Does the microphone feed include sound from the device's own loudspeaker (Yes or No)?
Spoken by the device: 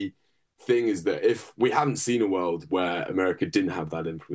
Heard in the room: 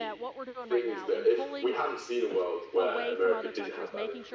Yes